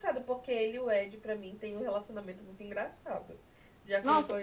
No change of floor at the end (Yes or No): No